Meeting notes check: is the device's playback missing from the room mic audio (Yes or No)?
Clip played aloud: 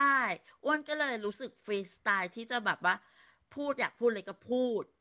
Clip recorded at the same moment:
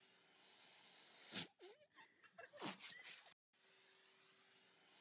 Yes